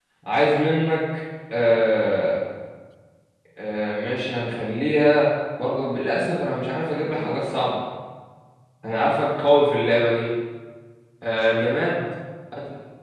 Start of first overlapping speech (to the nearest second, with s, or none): none